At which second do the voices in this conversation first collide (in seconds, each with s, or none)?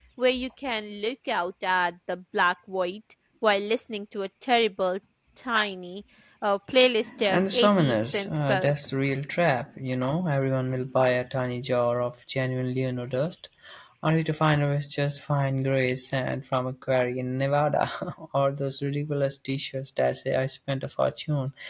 7.3 s